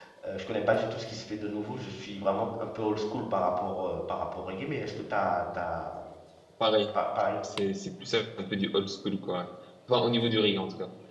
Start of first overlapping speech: none

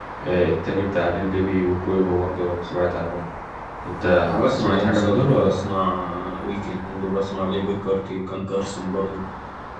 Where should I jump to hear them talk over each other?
4.2 s

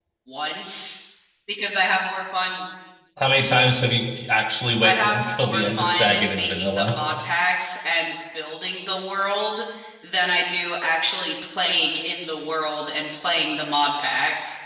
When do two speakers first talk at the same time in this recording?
4.8 s

